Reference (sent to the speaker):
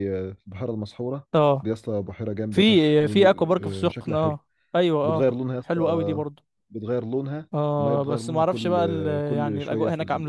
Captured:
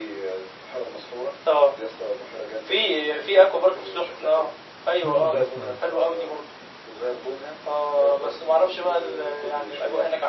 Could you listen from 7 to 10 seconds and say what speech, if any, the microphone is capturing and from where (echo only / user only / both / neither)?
echo only